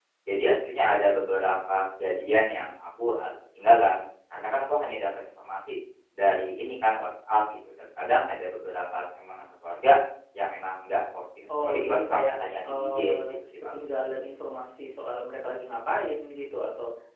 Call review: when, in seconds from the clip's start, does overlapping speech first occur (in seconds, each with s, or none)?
11.5 s